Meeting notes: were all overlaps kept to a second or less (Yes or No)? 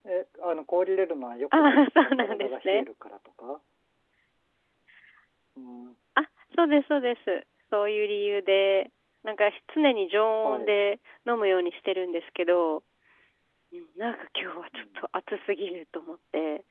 No